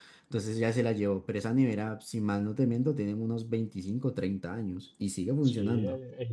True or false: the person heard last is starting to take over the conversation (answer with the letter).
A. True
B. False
A